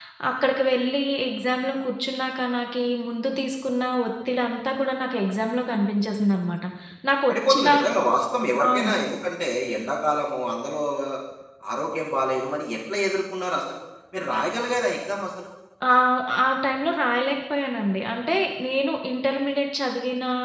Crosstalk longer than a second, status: none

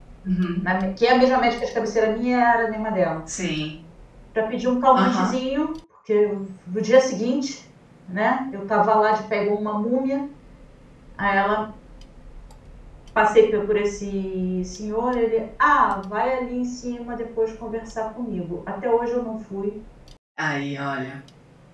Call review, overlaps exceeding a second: none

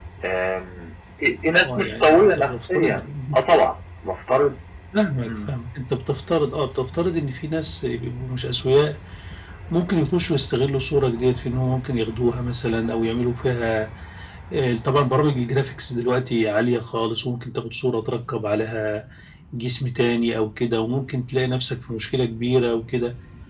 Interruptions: present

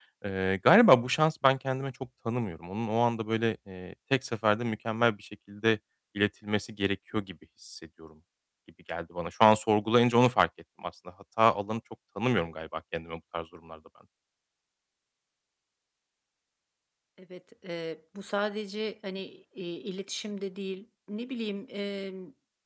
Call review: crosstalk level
none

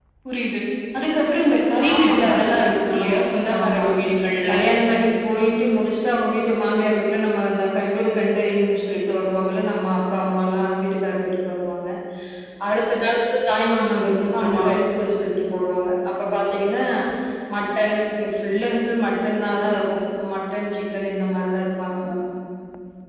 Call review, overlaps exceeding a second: present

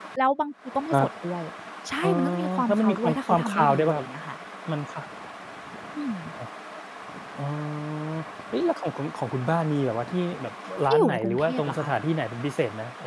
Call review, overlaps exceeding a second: present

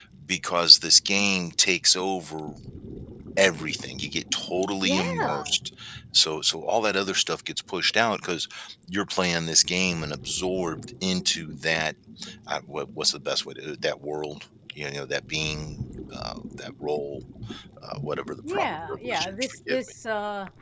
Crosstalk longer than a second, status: present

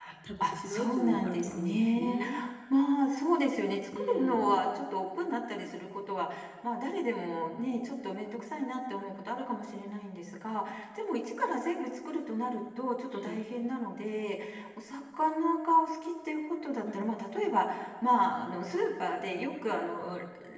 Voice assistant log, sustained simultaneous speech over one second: present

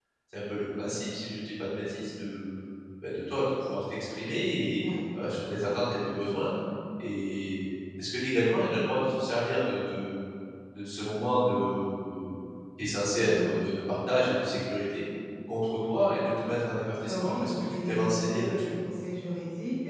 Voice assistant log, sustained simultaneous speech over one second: present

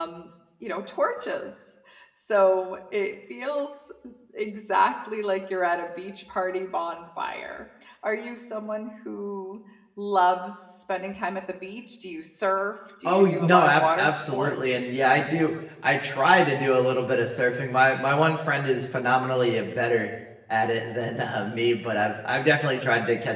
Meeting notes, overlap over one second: present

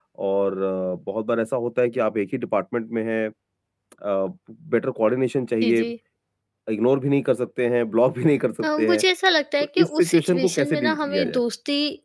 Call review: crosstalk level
present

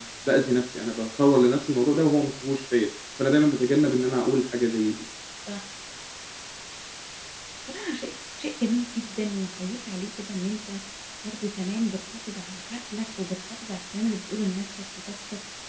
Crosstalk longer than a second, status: none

